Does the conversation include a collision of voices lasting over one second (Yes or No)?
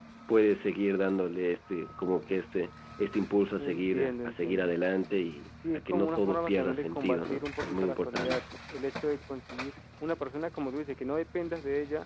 Yes